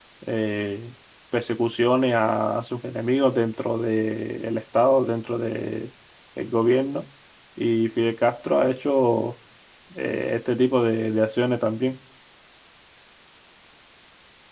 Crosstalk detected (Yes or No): No